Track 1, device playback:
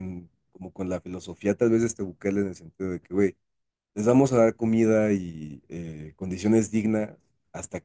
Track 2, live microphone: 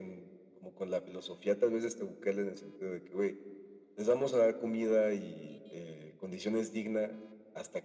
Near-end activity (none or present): none